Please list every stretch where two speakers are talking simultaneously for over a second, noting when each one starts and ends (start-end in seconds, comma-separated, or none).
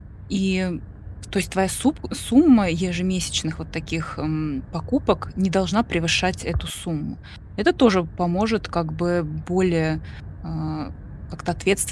none